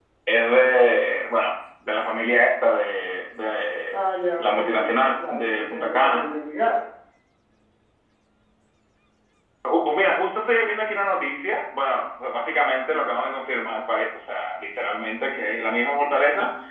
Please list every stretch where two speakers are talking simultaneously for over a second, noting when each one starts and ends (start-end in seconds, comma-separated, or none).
4.4-6.2